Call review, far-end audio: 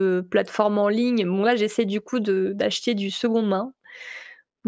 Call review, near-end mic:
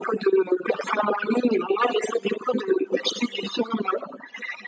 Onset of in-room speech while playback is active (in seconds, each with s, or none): none